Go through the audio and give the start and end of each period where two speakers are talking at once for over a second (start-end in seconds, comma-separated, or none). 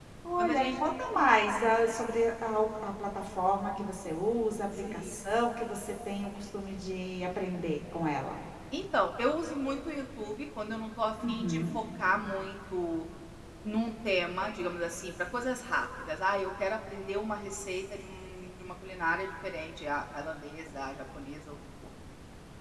none